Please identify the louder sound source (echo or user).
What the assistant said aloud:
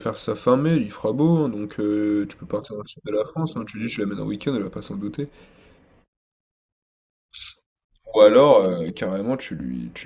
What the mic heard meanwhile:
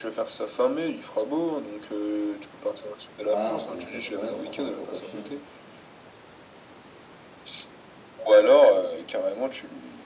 echo